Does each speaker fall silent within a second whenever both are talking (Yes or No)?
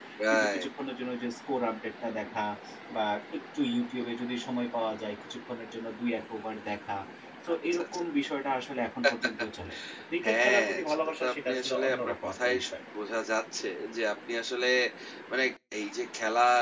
No